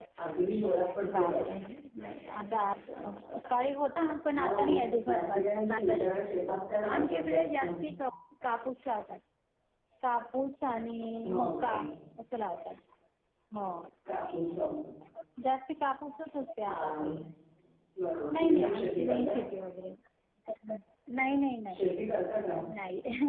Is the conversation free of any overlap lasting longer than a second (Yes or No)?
No